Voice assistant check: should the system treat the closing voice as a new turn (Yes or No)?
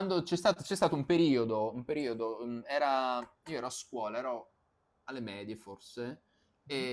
No